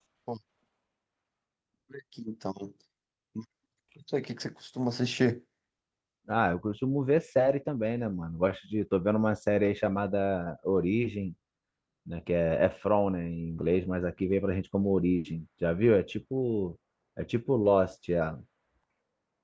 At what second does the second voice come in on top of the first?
none

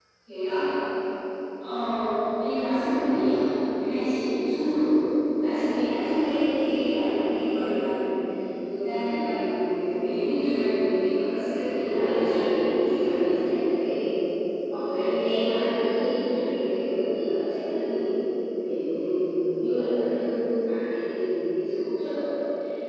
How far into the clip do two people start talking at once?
11.8 s

